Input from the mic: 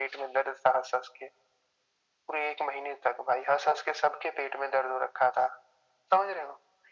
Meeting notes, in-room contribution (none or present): none